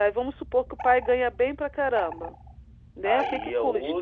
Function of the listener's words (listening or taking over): taking over